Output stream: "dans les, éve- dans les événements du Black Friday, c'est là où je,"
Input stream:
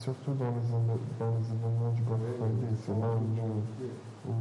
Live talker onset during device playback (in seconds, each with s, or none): 2.0 s